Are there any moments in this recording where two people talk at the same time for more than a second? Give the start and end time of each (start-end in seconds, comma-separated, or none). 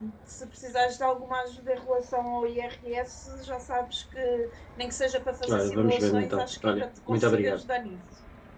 5.5-7.6